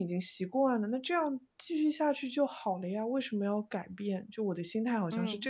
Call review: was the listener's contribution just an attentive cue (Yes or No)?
No